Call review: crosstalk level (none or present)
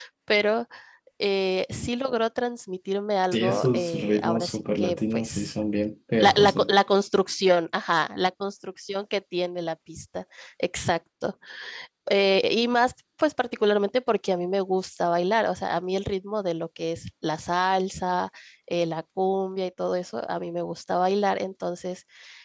present